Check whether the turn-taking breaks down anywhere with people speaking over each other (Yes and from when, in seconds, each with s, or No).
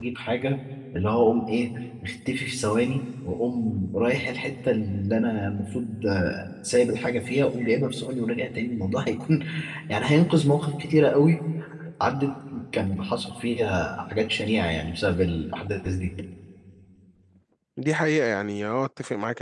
No